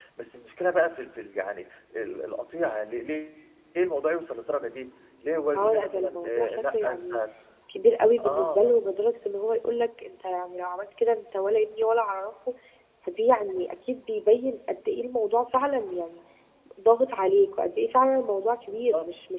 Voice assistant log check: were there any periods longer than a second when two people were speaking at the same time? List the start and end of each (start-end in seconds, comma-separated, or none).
5.6-7.2